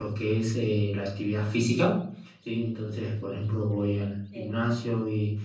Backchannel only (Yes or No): Yes